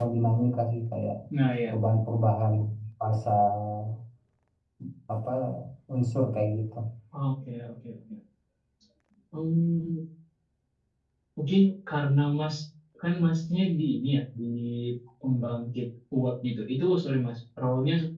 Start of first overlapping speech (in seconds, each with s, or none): none